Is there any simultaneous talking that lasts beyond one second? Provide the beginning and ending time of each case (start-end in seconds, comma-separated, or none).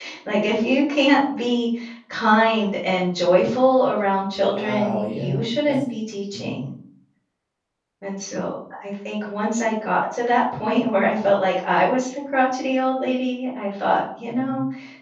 4.4-5.8